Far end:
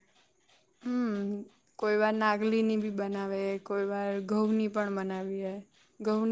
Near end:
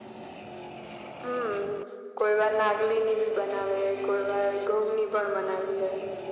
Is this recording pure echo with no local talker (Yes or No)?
Yes